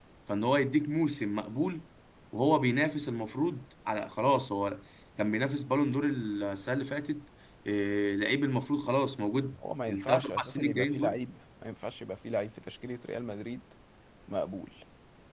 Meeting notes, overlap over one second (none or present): present